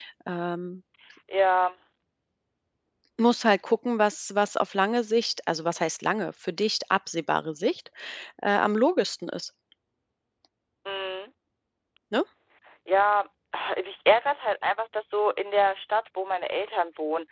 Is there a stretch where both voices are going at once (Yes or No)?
No